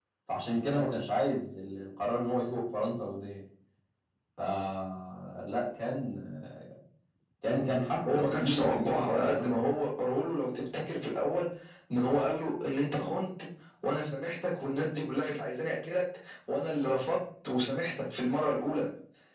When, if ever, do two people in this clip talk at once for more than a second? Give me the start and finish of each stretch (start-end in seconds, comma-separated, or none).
8.1-9.6